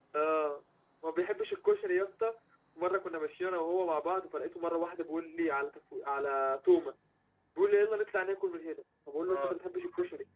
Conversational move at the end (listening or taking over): listening